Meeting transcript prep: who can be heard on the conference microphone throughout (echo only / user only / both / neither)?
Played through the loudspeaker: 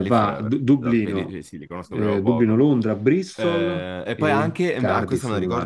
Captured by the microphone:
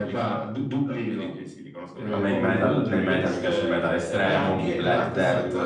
both